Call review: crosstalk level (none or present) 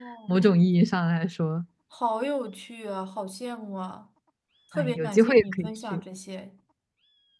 present